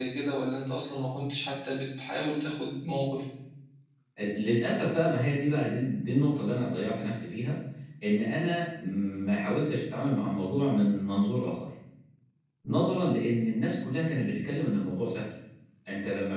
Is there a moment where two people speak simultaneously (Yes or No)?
No